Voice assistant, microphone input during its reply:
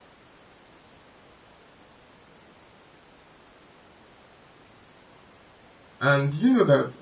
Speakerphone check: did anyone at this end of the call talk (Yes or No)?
Yes